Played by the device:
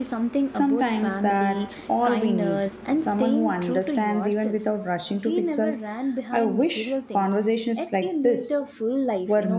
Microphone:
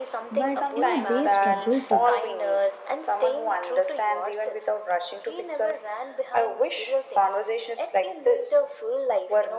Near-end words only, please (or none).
but you know, they struggled too.